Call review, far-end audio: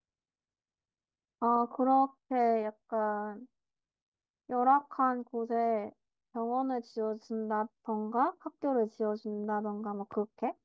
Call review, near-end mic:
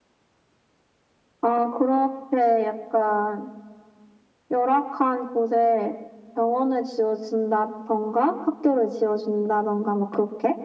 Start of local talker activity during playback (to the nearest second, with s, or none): none